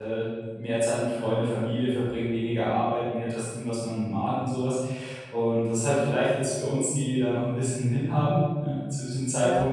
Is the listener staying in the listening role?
Yes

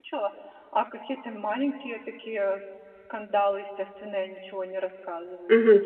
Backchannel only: No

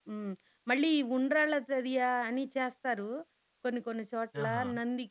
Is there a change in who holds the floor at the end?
No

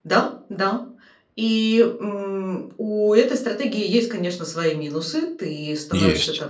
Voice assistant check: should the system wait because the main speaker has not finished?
Yes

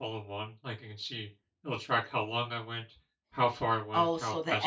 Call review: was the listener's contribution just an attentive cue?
No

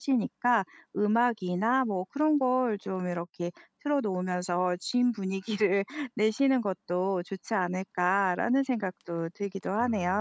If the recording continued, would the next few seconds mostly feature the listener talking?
Yes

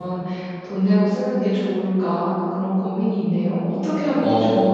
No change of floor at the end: No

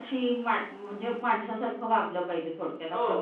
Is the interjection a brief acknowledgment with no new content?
No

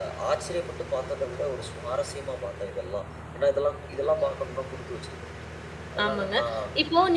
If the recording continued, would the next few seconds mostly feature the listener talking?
Yes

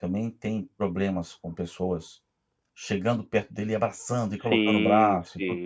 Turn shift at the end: Yes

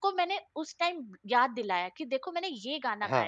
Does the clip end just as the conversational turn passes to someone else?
No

